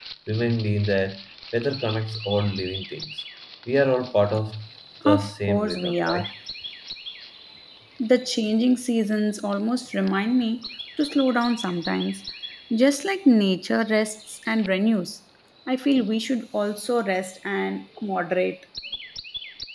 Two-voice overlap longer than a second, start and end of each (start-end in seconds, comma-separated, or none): 5.0-6.3